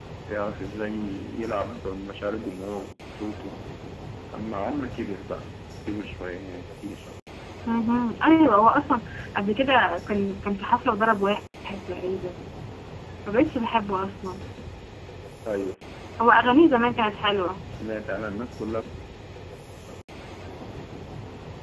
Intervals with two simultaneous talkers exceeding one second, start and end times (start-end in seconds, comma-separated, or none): none